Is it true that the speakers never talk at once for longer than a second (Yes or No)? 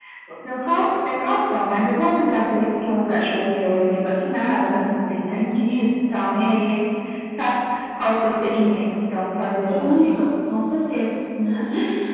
Yes